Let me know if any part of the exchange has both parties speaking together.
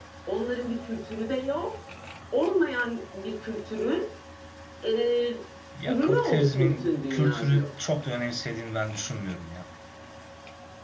Yes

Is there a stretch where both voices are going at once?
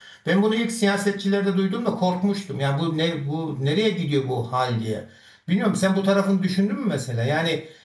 No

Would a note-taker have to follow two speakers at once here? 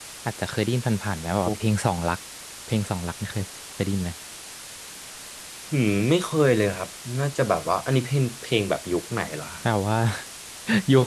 No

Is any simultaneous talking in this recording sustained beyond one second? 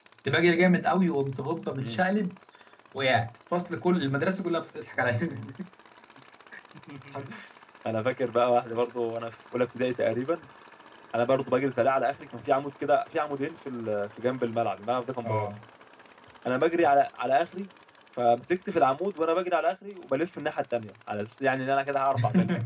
No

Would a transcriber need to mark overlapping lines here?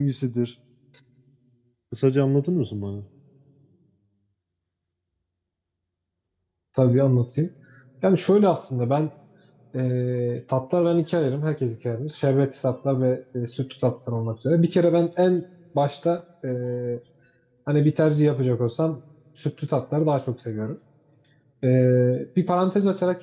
No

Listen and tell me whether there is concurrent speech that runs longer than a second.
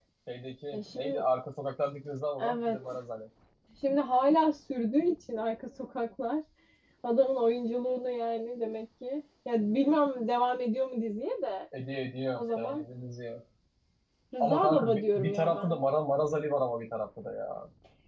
Yes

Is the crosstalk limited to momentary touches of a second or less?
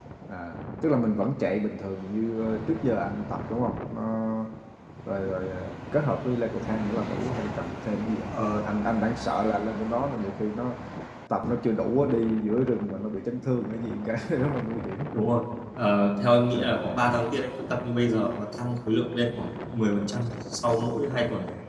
Yes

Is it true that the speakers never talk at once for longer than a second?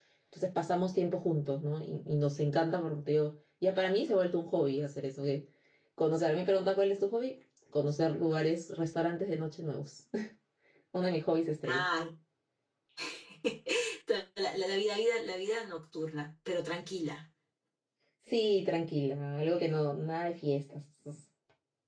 Yes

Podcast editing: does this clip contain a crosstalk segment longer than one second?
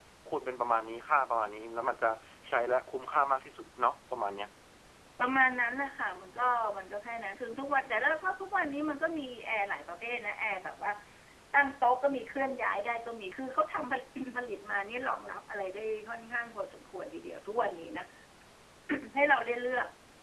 No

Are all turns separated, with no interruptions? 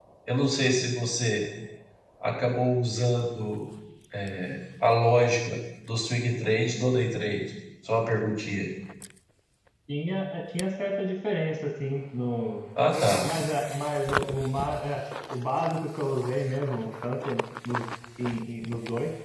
Yes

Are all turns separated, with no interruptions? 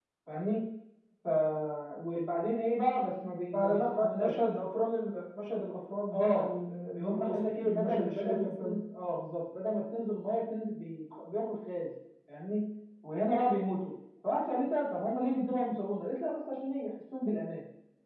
No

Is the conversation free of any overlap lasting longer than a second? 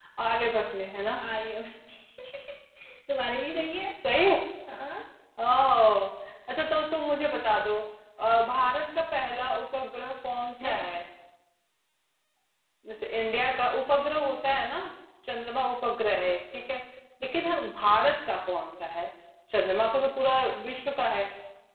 Yes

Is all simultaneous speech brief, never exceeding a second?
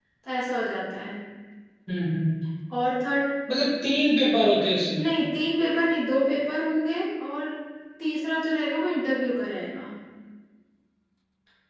Yes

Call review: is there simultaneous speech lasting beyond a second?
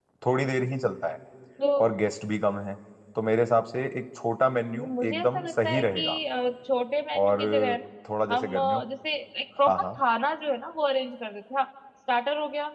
Yes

